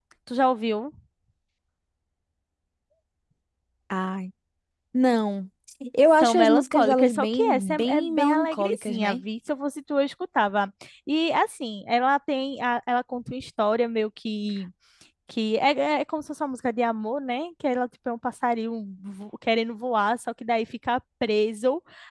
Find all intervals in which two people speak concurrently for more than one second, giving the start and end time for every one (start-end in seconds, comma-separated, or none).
6.2-9.2